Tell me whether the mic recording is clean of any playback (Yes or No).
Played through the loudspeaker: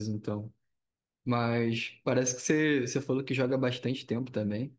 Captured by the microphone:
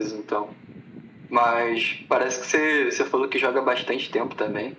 No